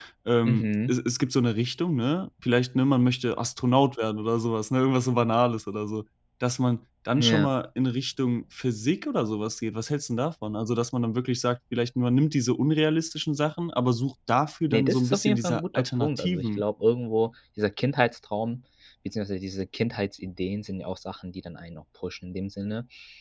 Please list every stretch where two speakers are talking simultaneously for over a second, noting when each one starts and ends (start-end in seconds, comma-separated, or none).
14.7-16.6